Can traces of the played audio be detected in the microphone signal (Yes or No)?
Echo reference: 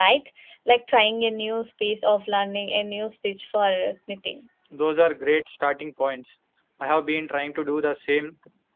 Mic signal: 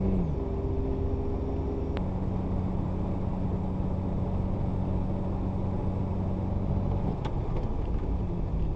No